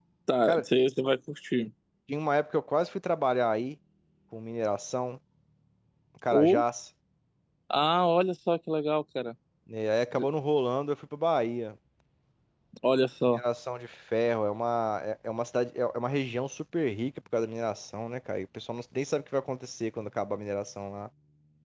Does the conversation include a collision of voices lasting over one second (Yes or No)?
No